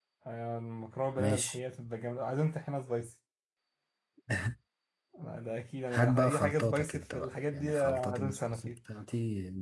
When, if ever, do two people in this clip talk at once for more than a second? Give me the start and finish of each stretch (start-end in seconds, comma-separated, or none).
5.9-8.7